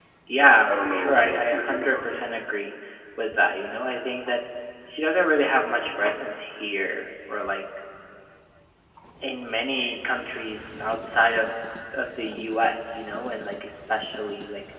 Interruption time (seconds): 0.7 s

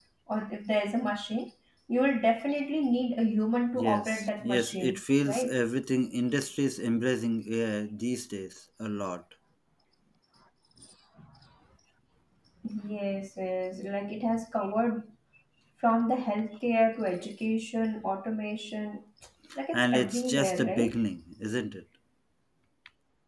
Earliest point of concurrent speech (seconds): 3.7 s

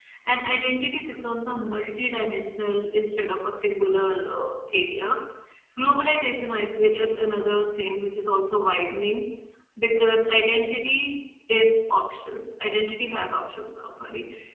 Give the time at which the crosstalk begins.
none

